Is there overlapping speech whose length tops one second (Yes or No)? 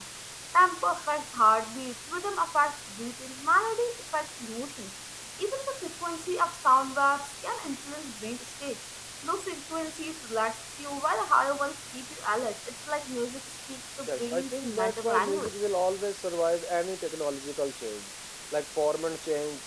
Yes